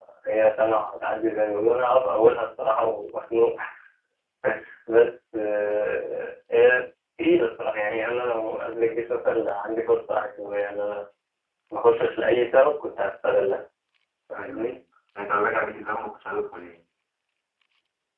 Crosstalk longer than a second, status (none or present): none